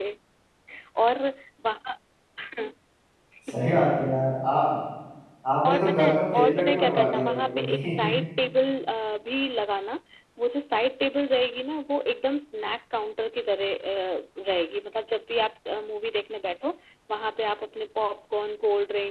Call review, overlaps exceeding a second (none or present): present